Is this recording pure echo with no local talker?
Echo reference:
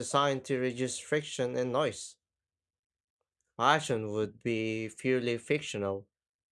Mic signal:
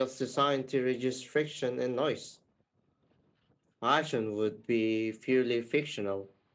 Yes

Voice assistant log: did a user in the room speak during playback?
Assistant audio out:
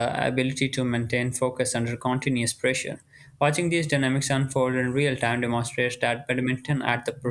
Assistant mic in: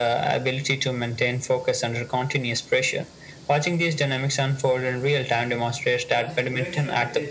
Yes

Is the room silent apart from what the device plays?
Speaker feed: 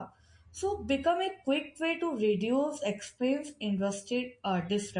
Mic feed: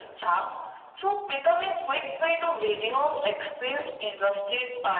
Yes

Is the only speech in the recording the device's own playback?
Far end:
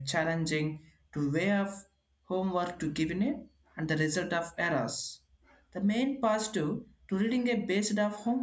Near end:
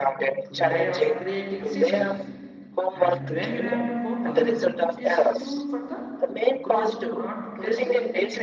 No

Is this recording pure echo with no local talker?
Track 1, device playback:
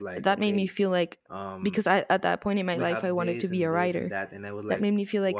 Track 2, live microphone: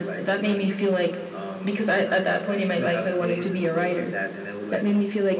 Yes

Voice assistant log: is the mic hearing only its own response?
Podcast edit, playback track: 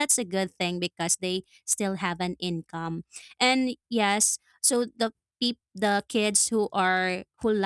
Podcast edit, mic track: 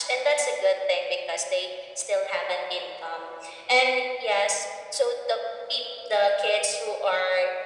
Yes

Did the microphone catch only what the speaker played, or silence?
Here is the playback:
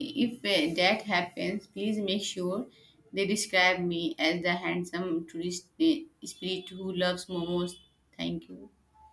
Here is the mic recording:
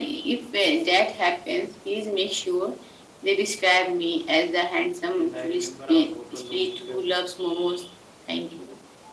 No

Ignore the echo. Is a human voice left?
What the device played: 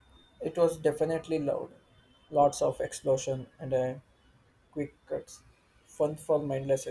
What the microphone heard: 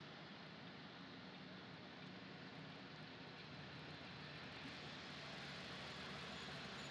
No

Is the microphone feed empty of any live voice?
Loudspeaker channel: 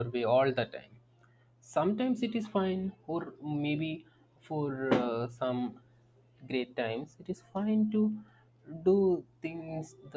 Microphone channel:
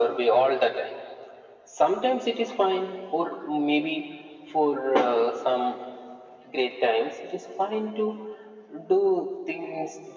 Yes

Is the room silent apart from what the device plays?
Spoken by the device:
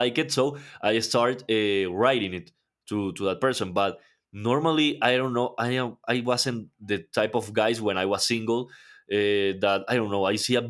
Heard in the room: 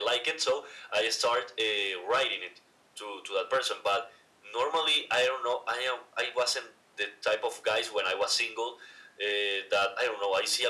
Yes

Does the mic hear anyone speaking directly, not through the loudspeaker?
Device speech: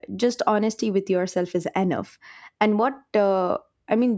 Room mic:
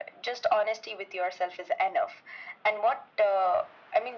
No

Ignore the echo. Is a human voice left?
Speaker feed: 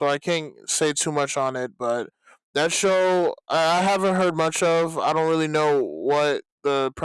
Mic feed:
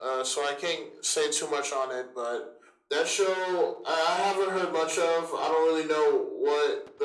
No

